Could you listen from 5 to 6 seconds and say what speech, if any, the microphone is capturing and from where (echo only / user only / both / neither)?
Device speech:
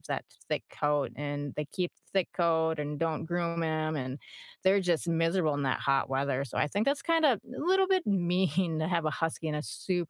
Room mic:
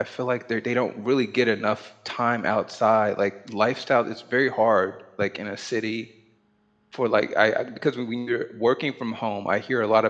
user only